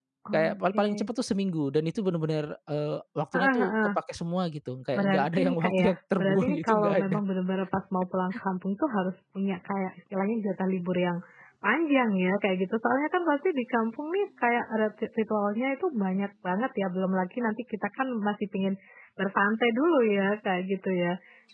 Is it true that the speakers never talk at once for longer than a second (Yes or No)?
No